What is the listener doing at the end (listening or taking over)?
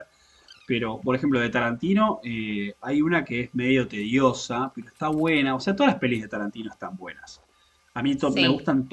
listening